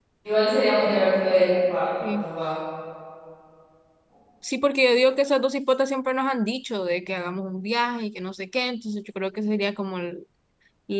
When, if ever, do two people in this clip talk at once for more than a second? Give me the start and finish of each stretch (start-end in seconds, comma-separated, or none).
none